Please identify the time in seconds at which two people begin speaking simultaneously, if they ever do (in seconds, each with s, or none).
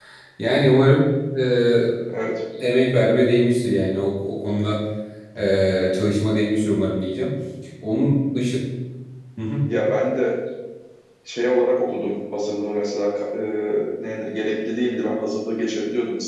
none